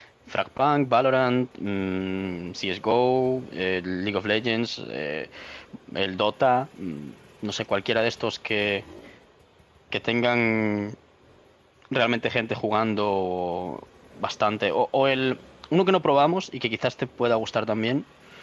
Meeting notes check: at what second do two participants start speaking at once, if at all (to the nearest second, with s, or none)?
none